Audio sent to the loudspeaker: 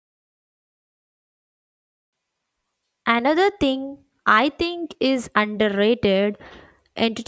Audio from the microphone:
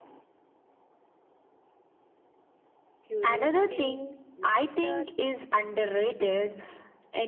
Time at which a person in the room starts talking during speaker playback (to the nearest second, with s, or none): 3 s